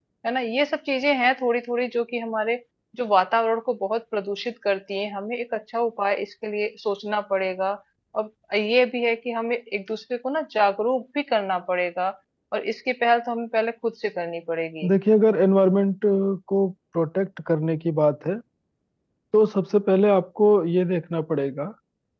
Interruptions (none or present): none